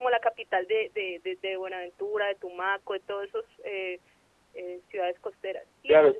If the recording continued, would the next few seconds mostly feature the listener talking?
Yes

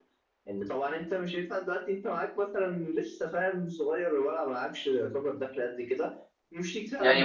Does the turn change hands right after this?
Yes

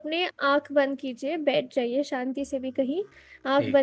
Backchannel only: Yes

